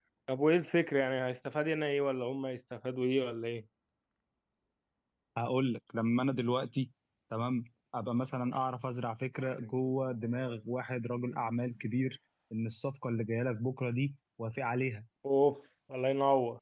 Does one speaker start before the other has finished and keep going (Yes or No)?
No